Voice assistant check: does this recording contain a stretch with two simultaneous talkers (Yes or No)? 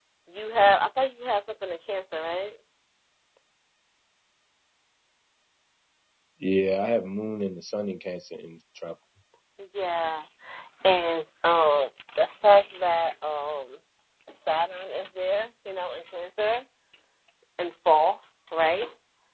No